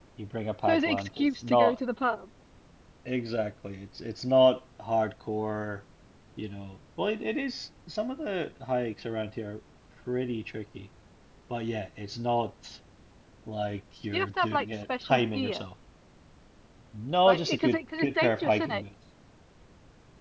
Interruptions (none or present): present